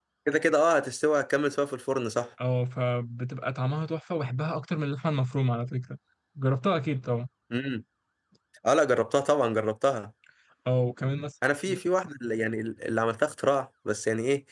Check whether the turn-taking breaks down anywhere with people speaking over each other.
No

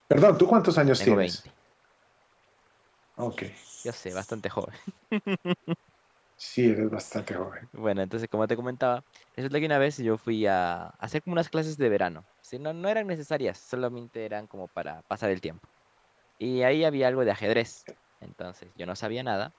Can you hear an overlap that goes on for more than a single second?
No

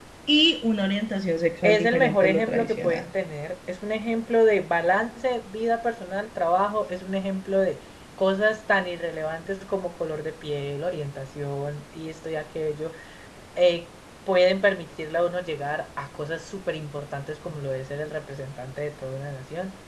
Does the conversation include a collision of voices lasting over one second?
Yes, from 1.6 s

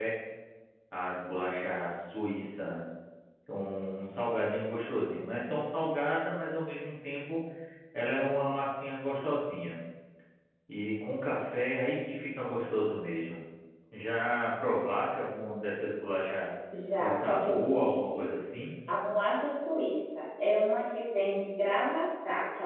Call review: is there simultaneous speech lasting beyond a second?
Yes, from 17.0 s

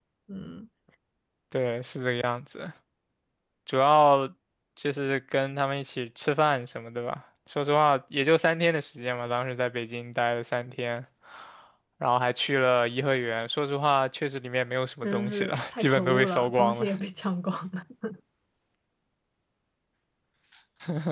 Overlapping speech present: Yes, from 15.0 s

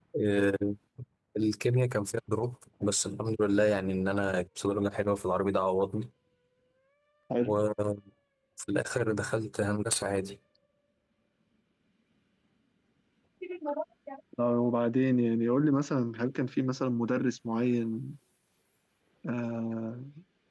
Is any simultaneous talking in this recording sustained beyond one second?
No

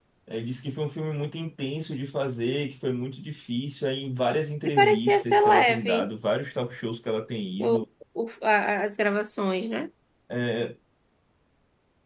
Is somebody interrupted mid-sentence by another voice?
Yes, from 4.7 s

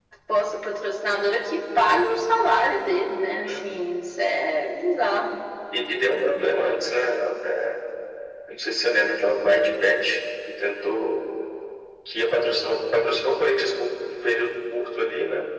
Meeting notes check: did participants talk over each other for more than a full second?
No

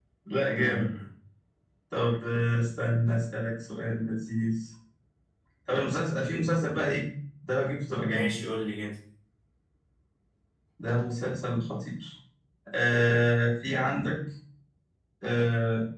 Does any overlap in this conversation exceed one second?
No

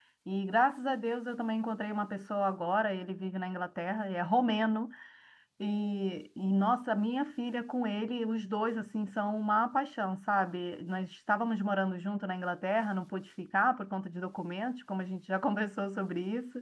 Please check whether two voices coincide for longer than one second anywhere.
No

